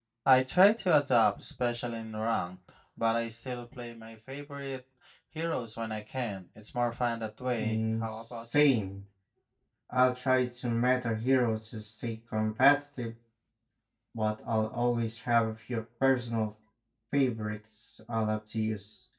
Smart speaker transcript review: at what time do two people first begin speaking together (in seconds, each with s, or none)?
7.6 s